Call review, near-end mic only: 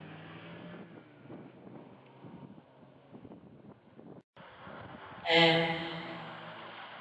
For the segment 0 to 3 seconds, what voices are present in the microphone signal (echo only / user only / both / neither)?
neither